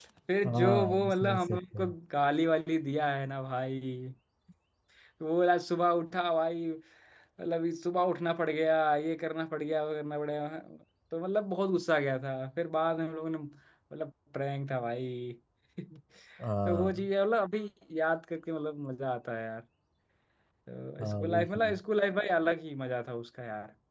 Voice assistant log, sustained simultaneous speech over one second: present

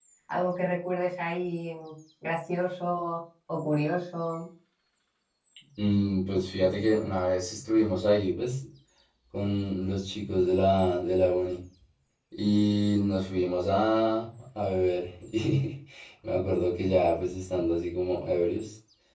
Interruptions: none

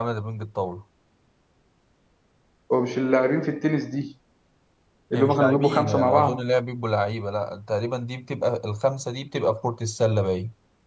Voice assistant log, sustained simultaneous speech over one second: present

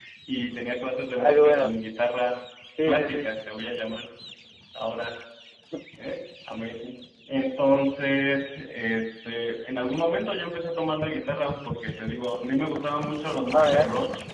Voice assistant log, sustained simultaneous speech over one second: none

